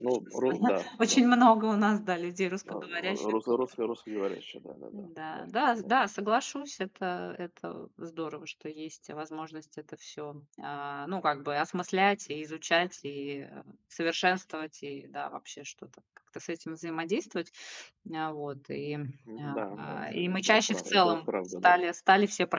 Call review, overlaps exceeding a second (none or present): present